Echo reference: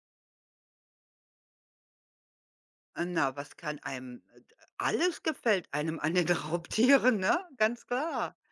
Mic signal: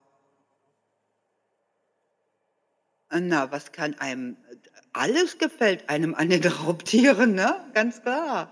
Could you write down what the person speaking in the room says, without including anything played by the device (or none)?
none